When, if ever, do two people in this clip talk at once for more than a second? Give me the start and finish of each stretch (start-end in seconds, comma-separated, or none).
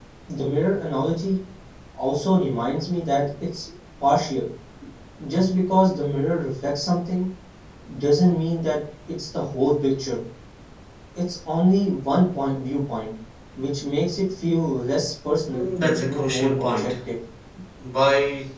15.5-16.9